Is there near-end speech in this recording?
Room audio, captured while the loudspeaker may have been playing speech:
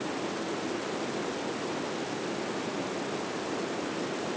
No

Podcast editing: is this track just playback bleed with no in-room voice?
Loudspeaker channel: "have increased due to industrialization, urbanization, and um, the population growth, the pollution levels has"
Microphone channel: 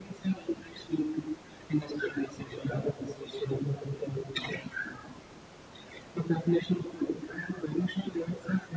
Yes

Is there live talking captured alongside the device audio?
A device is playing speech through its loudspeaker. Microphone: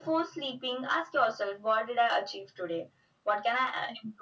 No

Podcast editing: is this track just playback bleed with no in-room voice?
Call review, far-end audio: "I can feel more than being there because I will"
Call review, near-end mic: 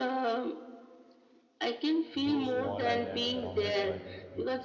No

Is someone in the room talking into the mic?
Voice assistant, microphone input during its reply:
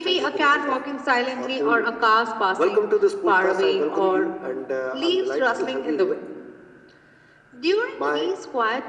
No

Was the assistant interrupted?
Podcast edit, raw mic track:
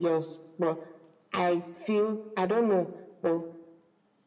No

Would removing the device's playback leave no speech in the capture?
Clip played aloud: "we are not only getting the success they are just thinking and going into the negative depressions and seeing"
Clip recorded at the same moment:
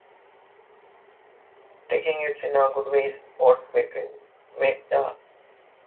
No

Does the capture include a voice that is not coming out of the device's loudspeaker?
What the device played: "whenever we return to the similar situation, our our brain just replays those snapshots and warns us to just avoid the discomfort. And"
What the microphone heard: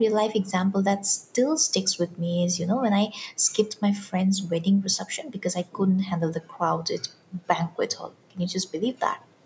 Yes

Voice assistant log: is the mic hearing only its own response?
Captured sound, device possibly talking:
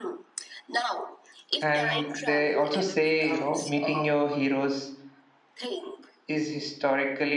No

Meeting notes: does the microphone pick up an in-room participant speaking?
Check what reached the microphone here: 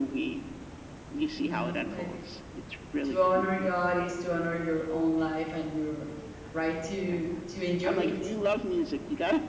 Yes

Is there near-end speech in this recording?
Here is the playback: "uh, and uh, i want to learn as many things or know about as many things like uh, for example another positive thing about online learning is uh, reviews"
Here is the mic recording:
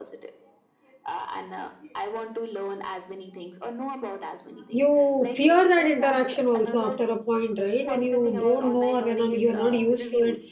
Yes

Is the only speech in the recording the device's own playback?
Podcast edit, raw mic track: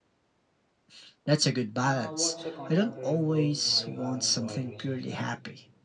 No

